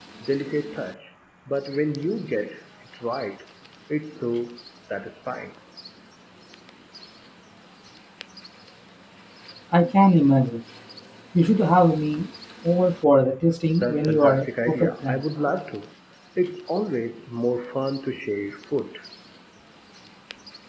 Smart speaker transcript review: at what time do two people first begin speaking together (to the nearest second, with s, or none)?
14 s